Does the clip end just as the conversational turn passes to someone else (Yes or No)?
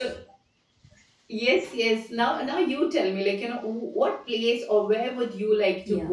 Yes